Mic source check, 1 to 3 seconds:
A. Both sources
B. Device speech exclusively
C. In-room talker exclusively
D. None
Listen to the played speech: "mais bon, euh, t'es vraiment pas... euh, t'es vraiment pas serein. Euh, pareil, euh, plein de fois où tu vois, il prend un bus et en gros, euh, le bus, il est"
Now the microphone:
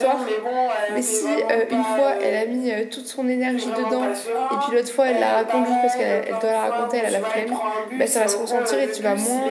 A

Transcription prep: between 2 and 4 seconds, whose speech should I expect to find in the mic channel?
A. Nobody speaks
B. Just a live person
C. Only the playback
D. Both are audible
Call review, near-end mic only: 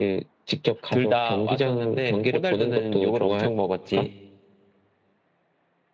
D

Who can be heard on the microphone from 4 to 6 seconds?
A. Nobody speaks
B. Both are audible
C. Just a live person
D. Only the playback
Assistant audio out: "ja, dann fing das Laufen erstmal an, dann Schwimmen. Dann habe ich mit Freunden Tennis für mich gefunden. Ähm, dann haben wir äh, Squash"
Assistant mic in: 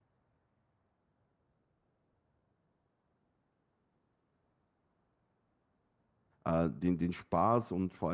A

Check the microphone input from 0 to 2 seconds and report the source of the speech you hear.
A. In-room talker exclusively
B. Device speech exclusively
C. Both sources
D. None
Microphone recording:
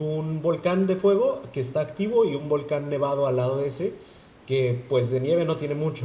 A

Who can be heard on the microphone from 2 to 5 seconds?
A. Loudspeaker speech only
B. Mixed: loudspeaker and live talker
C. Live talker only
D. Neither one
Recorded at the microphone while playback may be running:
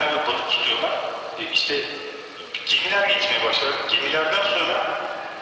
A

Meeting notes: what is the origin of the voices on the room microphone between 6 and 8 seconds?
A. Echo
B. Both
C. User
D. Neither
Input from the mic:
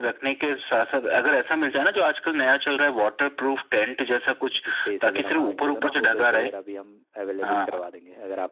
B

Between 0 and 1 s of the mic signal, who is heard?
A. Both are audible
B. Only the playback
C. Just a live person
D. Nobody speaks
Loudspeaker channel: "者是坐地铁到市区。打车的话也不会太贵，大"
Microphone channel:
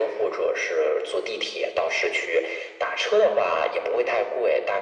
B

